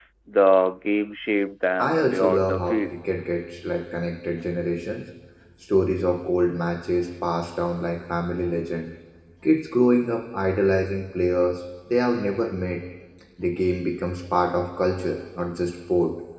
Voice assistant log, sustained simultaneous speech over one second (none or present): present